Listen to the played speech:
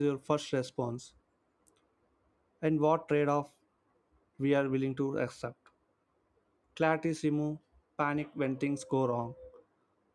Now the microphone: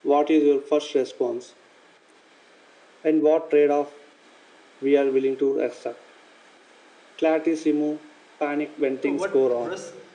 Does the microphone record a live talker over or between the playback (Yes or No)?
Yes